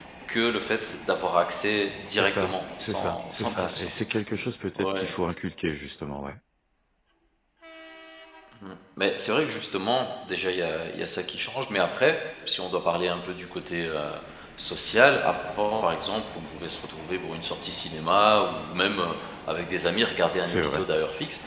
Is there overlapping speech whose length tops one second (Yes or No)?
Yes